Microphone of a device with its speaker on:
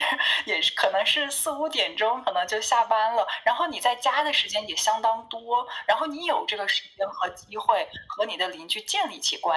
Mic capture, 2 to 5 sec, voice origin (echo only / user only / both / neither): echo only